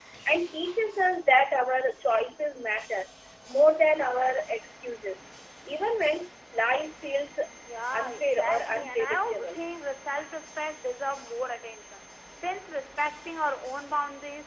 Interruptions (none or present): present